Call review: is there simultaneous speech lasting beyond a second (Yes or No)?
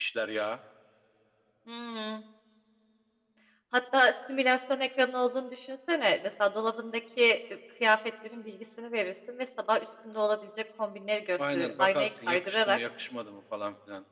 Yes